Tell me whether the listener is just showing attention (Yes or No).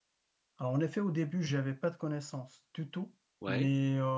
Yes